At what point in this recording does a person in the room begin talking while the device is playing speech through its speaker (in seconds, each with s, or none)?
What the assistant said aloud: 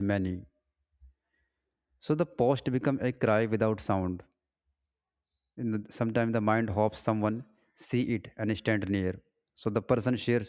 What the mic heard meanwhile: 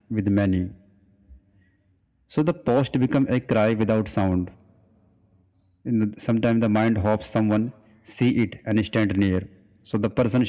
none